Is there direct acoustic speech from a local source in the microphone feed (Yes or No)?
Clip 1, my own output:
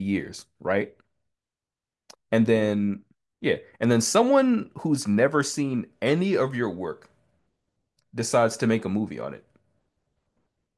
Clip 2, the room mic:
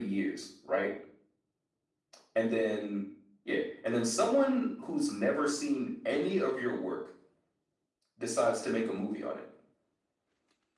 No